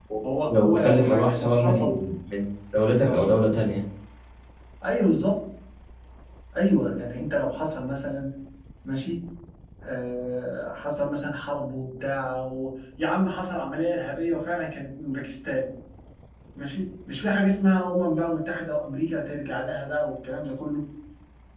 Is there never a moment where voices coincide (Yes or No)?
No